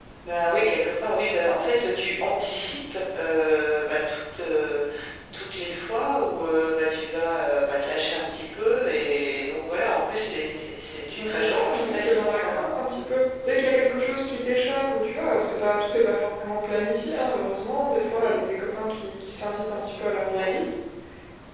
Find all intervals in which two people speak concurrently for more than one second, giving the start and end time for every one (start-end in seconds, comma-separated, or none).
11.2-12.8